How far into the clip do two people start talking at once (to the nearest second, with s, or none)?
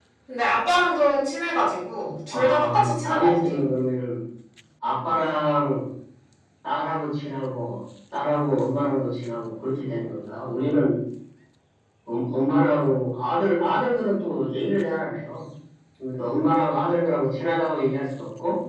2 s